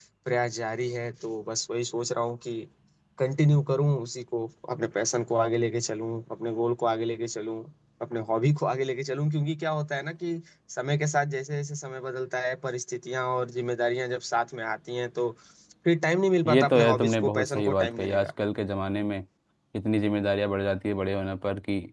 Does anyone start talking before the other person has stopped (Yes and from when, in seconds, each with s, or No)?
Yes, from 16.5 s